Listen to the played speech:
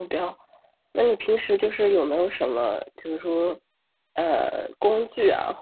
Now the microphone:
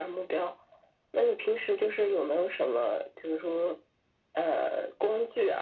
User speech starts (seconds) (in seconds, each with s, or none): none